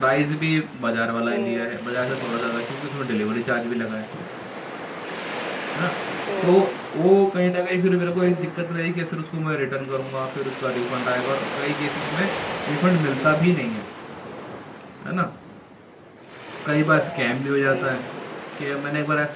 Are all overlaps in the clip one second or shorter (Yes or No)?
No